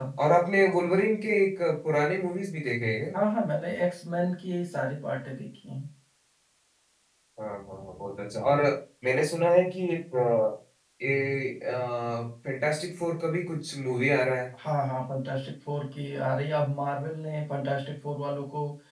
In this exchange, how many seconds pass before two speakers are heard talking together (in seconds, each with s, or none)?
none